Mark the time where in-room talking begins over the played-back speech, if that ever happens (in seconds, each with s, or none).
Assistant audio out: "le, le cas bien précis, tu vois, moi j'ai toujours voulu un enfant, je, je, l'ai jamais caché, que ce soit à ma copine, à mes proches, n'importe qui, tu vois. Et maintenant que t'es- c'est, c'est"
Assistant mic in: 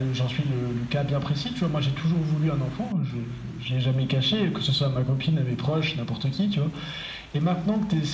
none